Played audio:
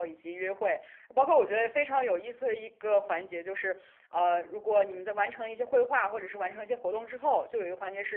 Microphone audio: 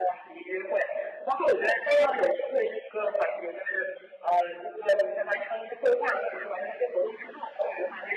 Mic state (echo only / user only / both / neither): echo only